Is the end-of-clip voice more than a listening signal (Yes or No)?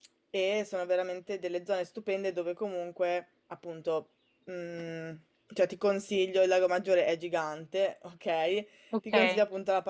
No